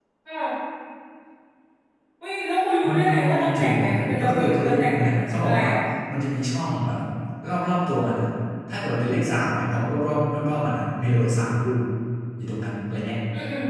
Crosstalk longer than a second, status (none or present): present